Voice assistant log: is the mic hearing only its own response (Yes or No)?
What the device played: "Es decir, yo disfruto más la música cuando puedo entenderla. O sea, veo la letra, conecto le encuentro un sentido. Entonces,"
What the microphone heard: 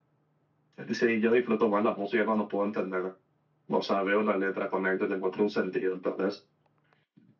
Yes